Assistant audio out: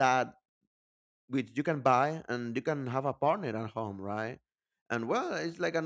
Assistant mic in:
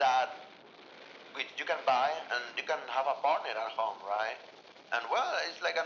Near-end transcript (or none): none